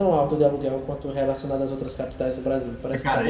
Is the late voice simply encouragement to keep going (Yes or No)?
No